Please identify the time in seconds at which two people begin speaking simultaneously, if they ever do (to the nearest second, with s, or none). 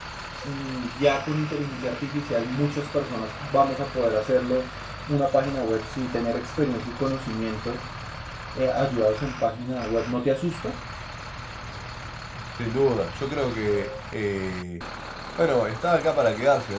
none